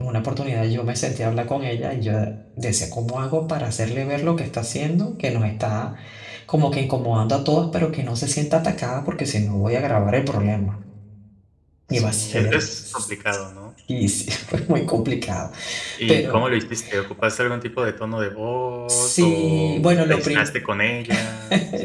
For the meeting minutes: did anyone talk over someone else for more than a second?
Yes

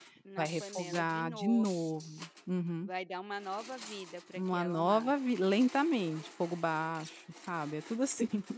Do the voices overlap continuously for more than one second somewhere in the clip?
Yes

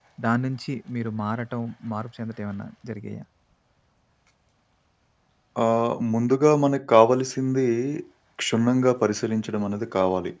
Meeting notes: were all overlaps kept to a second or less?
Yes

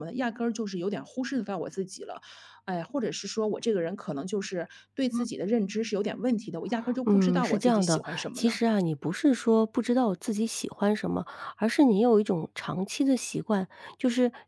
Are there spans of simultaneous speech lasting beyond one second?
Yes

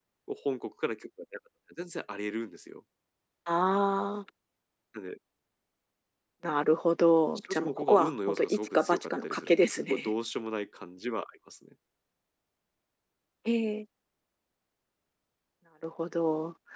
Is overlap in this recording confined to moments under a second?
No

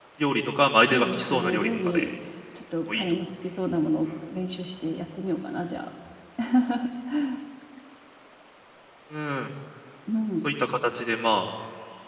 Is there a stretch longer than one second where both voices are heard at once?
Yes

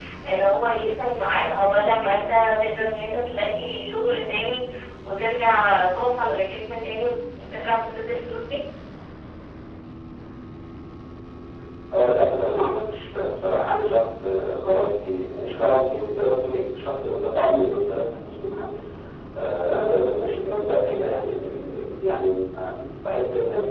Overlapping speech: No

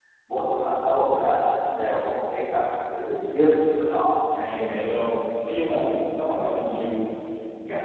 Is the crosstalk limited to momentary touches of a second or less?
Yes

